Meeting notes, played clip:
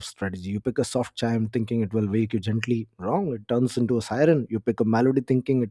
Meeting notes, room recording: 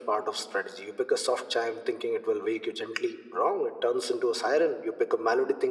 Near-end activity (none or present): none